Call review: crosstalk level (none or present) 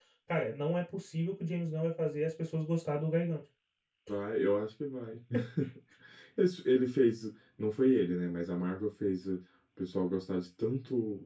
none